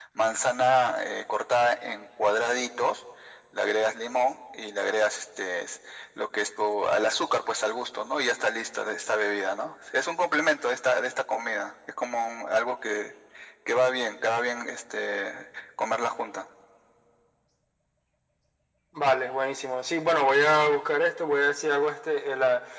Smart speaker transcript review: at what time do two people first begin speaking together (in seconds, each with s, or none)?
none